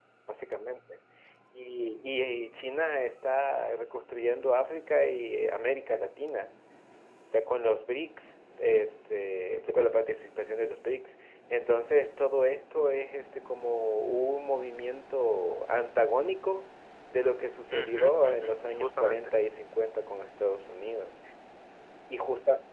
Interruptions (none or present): present